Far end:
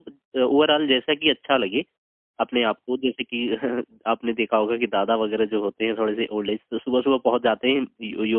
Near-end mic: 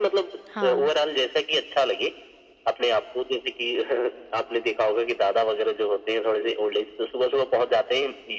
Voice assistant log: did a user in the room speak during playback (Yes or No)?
Yes